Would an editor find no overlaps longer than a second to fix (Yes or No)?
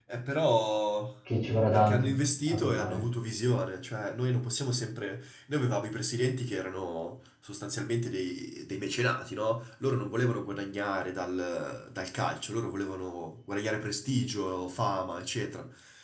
No